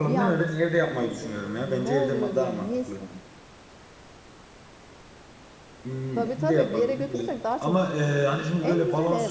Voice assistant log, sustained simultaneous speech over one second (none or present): present